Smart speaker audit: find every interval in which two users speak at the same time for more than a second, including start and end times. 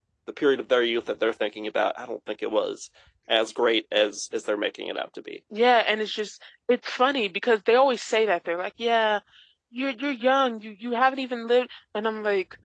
none

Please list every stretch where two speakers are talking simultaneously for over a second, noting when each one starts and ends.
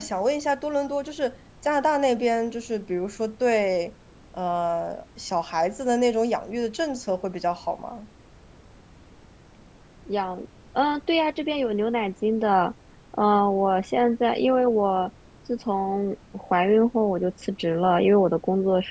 none

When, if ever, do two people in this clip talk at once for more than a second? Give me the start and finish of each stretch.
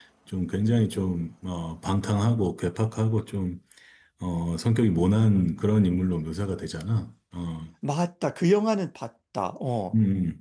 none

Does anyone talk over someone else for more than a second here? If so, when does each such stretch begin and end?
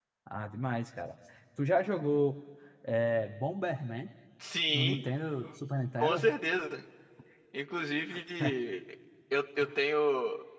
none

